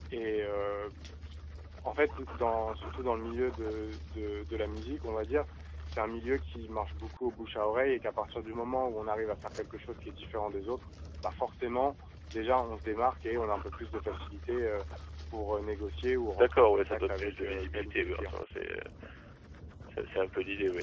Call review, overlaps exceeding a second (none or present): present